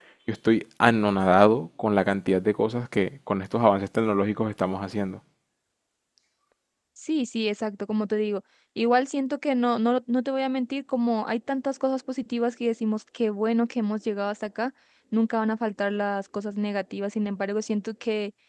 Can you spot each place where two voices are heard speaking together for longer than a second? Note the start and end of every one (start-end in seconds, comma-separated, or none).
none